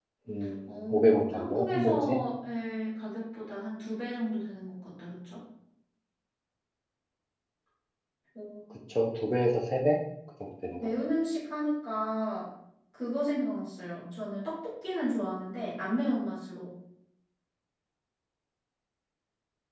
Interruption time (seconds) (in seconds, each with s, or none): 0.7 s